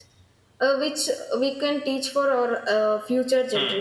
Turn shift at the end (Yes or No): Yes